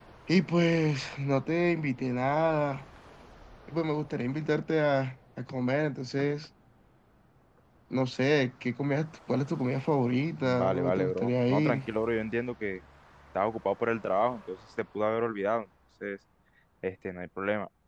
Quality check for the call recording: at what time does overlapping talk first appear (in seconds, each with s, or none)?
10.4 s